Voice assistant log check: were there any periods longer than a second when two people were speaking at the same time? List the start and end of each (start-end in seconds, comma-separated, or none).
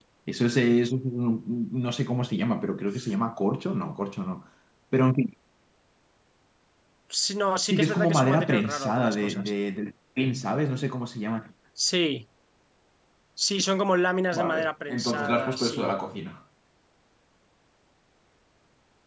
7.7-9.5, 14.3-15.9